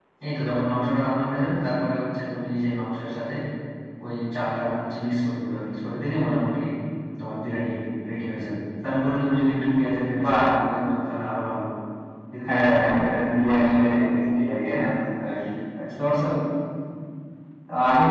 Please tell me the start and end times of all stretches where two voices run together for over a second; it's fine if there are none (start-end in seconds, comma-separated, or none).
12.5-14.2